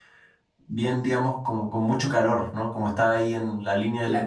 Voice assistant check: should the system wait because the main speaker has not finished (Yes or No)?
No